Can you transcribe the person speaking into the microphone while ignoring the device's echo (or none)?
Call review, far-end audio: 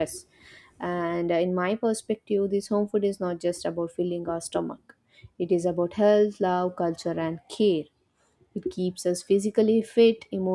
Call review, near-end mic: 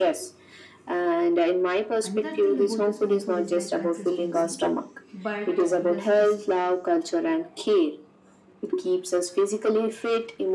Another thing about this home food is like consistency but this a s-